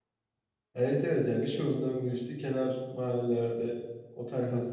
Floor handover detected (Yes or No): No